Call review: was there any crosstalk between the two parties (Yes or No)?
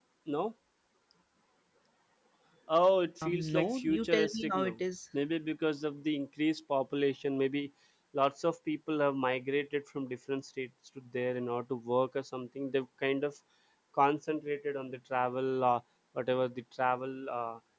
Yes